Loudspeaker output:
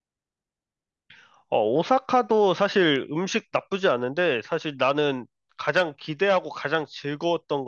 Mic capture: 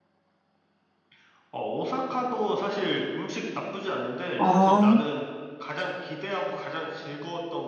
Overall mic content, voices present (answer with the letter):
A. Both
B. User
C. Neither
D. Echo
A